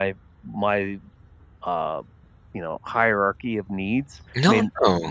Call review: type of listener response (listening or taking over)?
taking over